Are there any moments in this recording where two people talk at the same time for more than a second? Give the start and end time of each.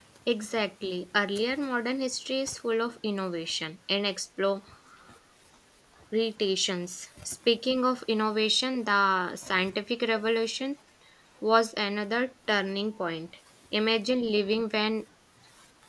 none

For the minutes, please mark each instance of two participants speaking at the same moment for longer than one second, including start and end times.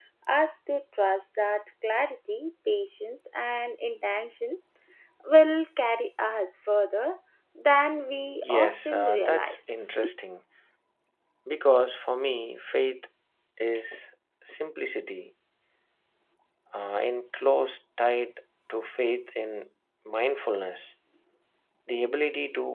8.4-9.8

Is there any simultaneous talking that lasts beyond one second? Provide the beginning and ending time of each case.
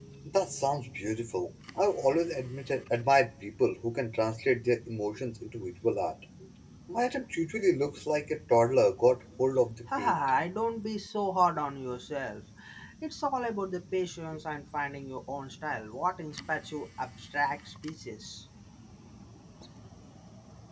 none

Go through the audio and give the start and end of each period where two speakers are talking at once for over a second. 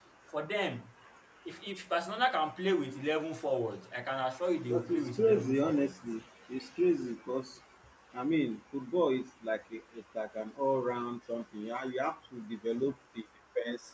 4.7-6.0

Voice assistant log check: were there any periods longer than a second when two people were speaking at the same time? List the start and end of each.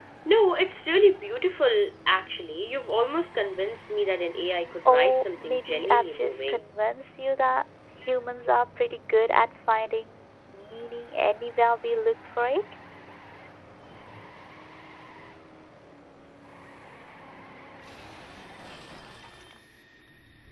4.8-6.6

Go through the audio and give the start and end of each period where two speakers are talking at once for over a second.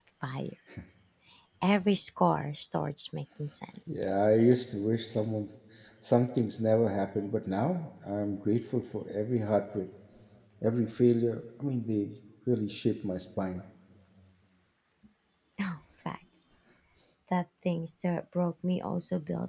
none

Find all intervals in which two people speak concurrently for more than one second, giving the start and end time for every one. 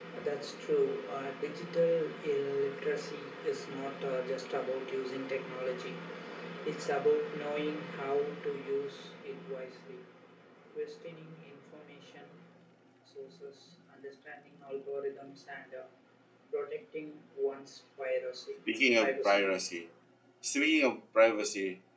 none

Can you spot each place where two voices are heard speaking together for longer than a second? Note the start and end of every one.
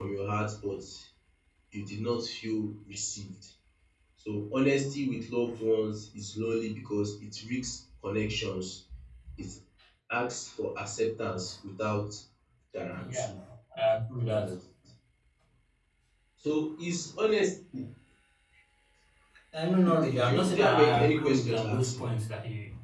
19.9-22.0

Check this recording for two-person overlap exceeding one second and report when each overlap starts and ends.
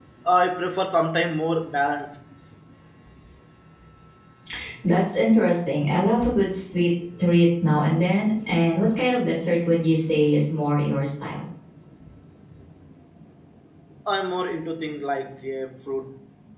none

